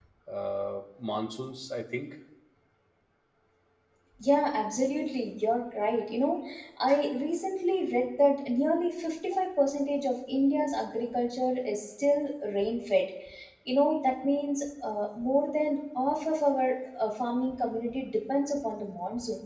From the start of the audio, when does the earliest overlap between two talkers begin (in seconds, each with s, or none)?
none